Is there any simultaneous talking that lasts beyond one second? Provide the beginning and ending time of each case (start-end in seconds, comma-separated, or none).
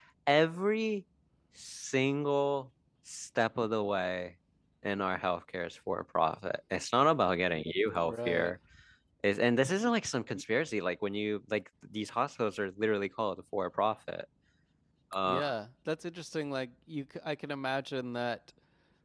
none